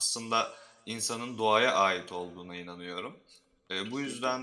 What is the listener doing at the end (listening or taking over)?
listening